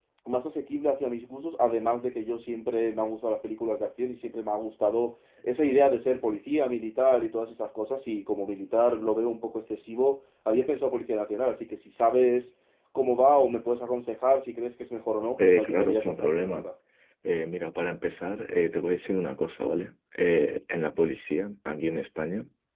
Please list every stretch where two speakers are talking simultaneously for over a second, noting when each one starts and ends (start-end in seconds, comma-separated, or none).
15.4-16.6